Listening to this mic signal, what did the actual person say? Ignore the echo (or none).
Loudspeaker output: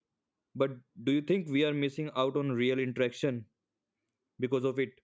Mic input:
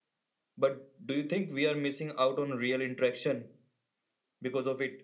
none